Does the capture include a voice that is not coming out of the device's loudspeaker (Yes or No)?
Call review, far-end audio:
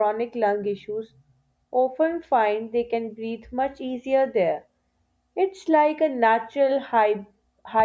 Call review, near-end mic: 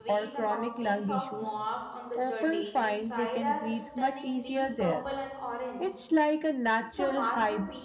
Yes